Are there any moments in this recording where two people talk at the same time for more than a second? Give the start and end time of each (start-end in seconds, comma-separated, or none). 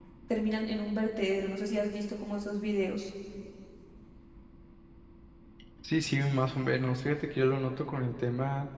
none